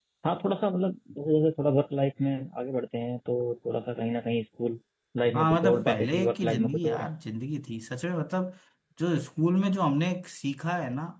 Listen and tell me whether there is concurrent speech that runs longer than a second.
Yes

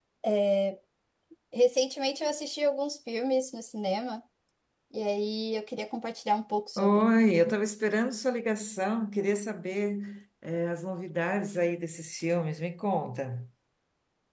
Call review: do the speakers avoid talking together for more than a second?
Yes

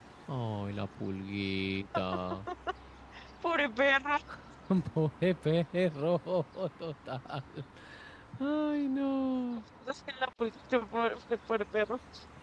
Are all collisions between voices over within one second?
Yes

